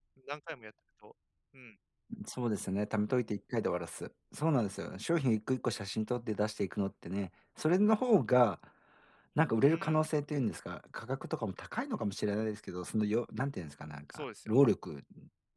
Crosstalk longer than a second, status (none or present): none